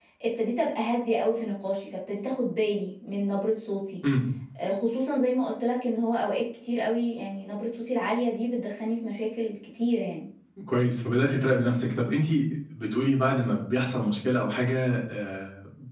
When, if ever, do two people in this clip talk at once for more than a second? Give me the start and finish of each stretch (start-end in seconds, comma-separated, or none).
none